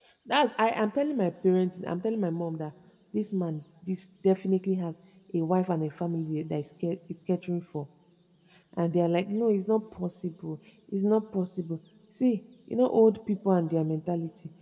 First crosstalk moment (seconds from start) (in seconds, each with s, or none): none